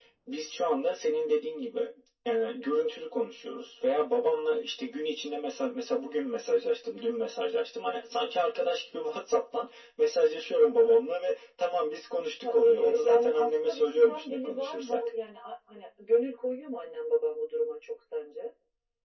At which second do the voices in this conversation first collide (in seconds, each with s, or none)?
12.4 s